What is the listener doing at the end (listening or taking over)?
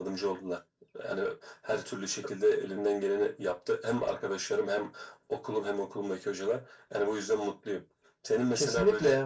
listening